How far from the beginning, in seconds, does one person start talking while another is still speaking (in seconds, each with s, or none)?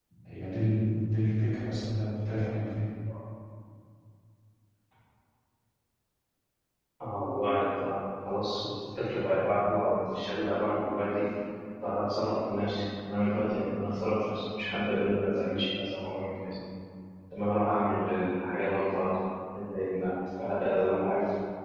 none